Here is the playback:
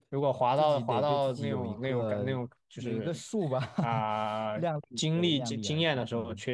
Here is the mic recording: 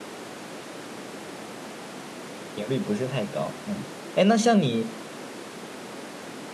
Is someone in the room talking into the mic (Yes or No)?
Yes